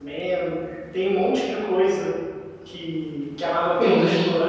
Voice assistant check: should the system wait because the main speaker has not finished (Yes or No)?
Yes